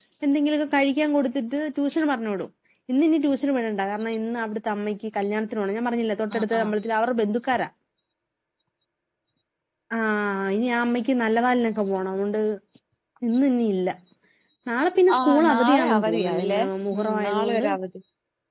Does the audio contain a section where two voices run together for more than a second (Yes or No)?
Yes